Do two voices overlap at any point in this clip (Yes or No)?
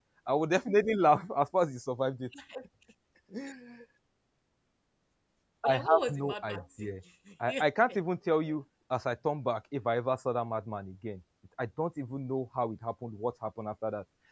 Yes